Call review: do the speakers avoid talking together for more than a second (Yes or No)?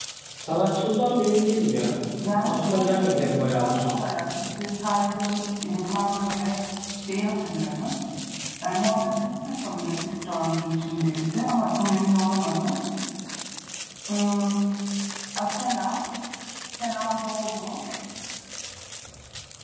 No